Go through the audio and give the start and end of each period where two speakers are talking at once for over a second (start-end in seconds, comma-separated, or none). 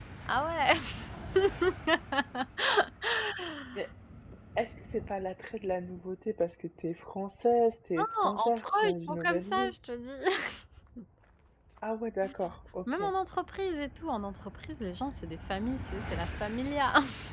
8.0-9.7